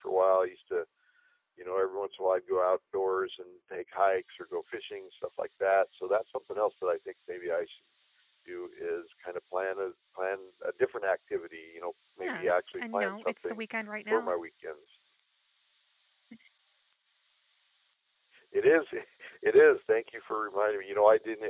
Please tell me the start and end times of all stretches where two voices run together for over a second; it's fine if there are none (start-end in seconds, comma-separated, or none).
12.2-13.6